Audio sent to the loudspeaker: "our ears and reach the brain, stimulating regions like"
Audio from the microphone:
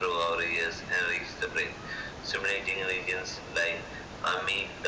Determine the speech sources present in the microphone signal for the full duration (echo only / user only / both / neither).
echo only